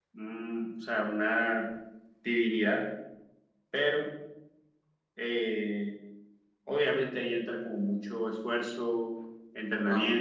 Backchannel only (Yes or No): Yes